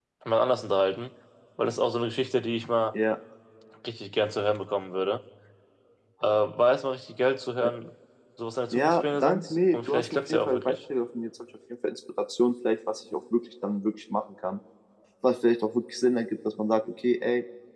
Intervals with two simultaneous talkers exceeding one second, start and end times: 8.7-10.8

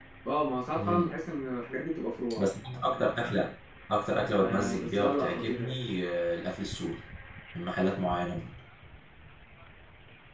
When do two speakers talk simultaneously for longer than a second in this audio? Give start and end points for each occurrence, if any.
4.4-5.7

